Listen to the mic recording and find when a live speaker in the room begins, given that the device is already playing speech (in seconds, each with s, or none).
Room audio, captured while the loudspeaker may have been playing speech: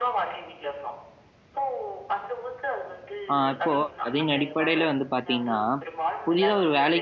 3.3 s